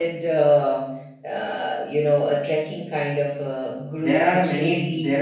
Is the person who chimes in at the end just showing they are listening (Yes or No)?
No